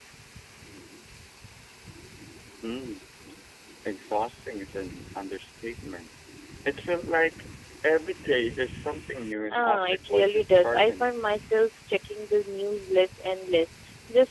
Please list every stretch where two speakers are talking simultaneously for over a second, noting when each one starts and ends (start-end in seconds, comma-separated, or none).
9.5-11.1